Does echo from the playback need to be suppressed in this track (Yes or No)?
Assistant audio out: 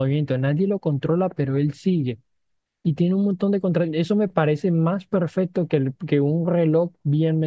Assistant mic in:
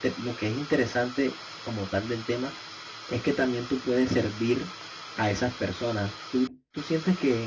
No